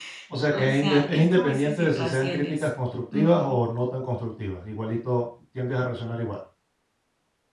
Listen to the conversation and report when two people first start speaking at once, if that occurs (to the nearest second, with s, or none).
1 s